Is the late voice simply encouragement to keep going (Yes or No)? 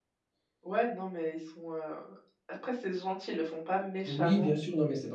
No